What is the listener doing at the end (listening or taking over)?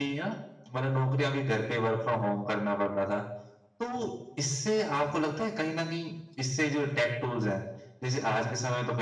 listening